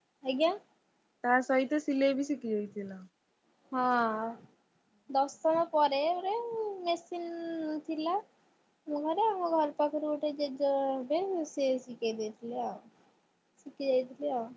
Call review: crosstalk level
none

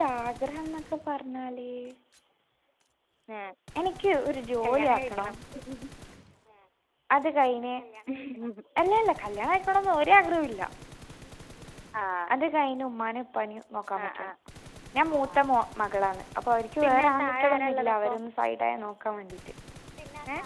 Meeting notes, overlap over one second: present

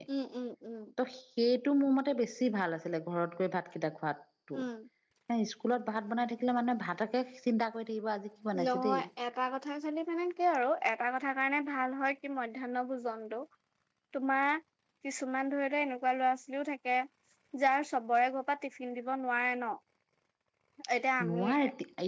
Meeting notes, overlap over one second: none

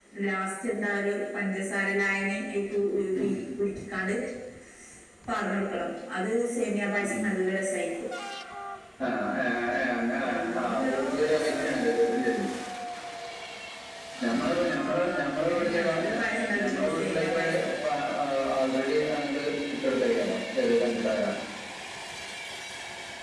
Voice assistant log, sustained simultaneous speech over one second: present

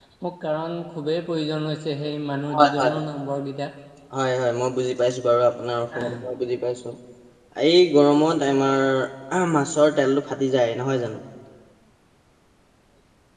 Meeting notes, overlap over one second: none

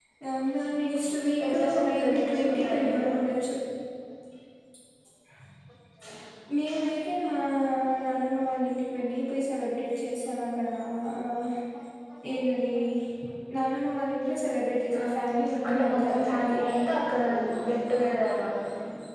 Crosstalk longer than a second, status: present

